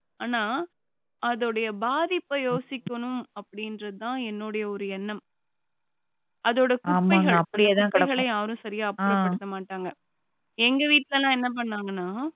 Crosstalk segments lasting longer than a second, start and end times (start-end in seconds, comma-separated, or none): 7.0-8.2